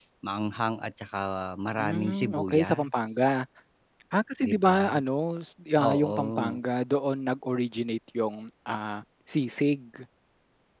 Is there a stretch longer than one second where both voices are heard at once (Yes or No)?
Yes